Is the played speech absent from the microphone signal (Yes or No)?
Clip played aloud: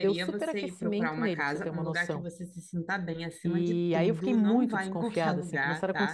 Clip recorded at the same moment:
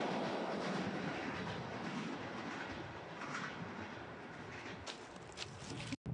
Yes